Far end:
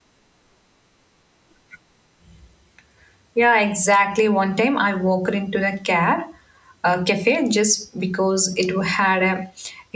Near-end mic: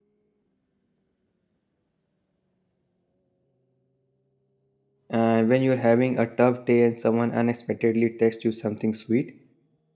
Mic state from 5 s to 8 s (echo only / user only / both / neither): user only